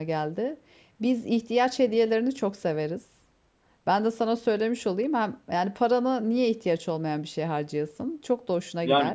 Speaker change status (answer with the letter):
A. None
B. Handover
B